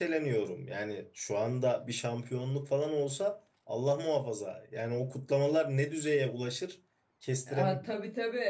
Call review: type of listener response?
taking over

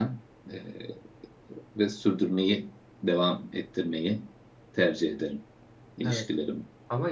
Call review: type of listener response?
taking over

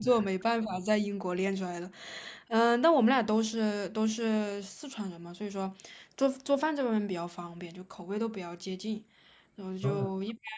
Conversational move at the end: listening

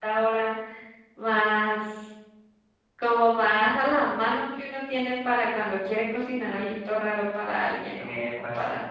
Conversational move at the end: listening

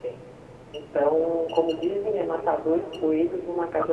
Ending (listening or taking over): taking over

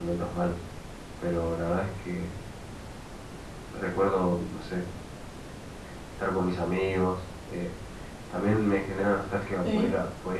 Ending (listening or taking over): listening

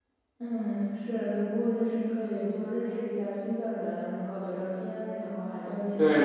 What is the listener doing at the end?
taking over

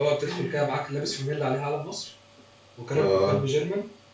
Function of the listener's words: listening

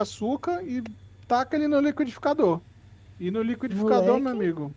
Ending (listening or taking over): listening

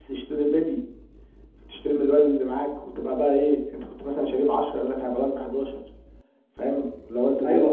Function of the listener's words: taking over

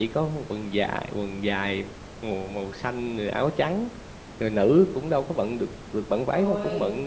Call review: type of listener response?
listening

